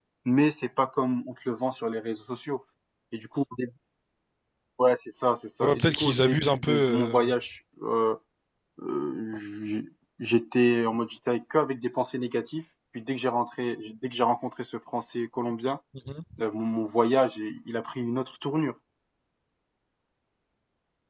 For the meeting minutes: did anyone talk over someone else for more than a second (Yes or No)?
Yes